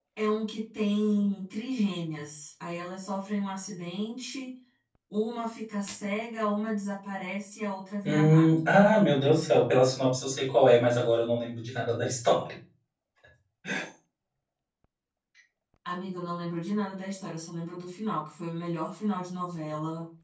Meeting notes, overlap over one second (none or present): none